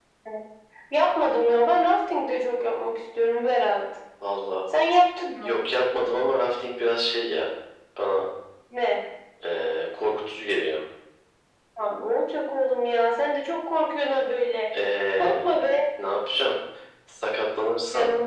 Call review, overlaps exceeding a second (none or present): none